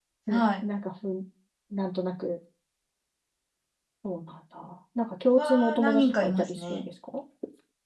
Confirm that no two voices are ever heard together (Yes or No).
No